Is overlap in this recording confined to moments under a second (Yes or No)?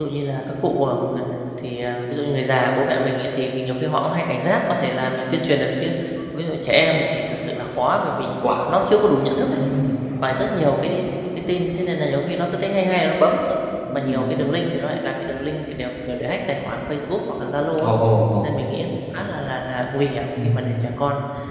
Yes